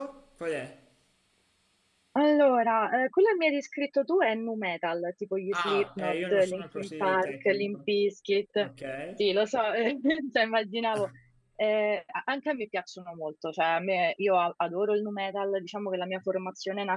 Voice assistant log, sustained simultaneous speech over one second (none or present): present